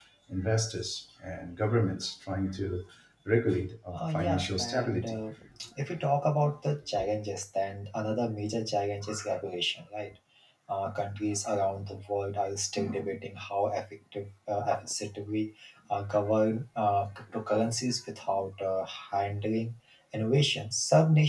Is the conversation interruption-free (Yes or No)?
No